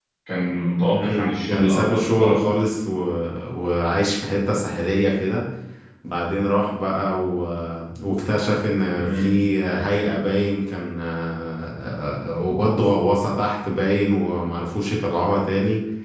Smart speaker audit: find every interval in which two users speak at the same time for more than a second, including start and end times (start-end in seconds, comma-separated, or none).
0.9-2.4